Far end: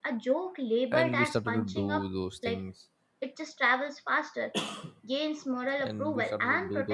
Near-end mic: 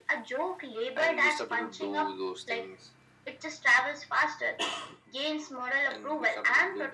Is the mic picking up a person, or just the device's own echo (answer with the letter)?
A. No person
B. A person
A